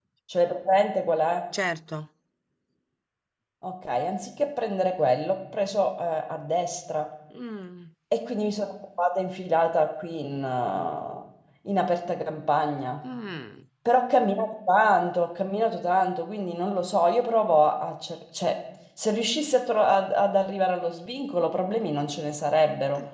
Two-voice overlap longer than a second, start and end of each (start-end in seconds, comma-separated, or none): none